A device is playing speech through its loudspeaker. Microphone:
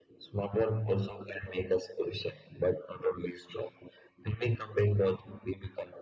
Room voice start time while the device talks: none

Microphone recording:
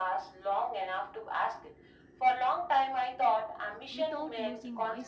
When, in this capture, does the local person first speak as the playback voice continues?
4 s

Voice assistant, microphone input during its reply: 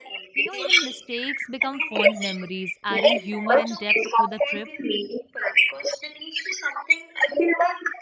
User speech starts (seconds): 0 s

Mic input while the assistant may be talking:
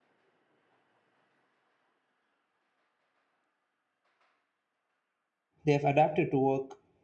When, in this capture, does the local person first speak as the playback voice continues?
6 s

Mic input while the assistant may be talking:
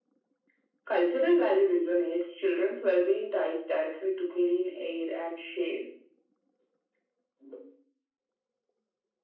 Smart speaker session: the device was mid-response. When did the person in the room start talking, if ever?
none

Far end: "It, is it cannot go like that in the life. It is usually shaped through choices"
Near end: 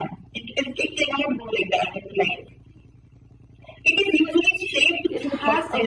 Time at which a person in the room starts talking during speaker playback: 5 s

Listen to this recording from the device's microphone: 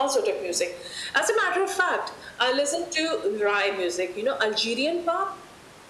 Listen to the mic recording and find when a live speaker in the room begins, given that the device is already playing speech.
none

